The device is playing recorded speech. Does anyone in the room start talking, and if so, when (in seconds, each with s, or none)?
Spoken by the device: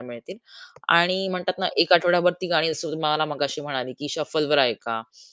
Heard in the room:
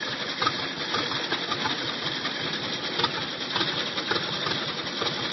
none